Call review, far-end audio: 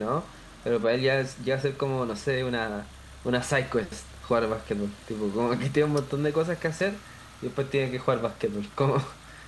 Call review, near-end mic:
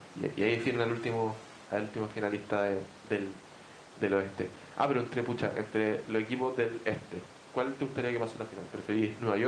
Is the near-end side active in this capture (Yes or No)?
Yes